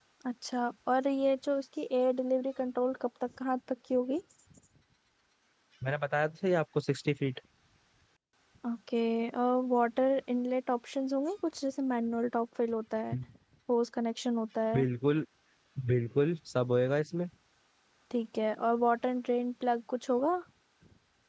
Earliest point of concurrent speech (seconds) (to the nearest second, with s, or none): none